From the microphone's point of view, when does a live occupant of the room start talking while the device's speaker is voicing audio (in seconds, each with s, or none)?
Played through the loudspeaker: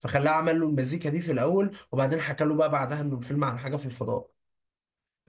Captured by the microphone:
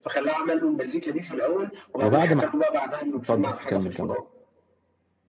2.0 s